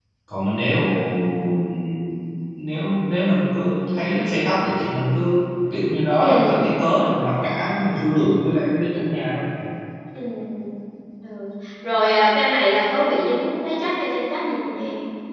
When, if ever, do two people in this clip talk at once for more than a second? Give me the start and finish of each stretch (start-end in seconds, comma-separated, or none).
none